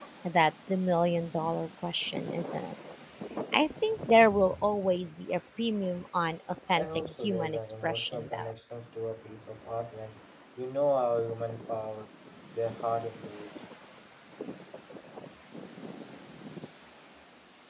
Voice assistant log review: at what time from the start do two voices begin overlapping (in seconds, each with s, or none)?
6.7 s